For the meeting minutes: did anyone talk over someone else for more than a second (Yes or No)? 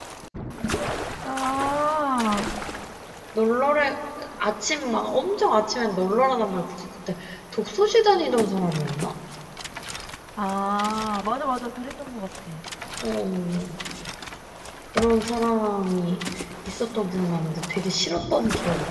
No